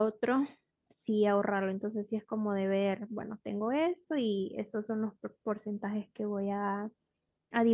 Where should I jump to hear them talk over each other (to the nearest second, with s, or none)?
none